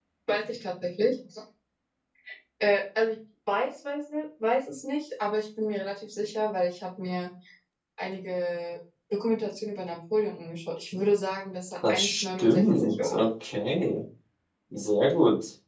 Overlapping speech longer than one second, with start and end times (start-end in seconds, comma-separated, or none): 11.9-13.2